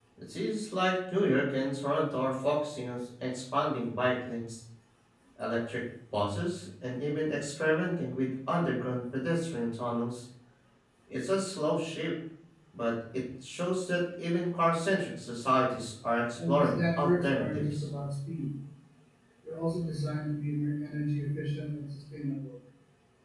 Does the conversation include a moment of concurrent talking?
Yes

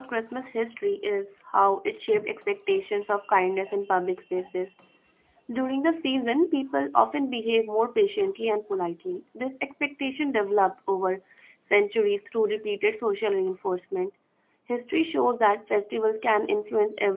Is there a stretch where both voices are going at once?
No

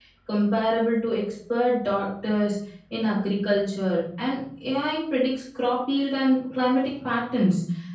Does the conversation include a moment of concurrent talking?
No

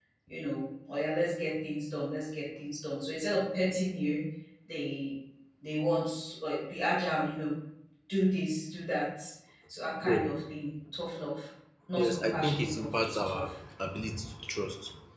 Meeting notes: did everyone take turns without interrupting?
No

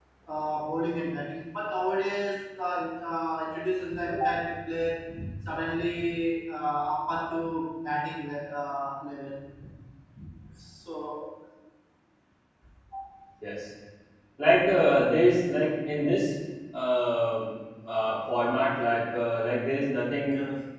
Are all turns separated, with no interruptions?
Yes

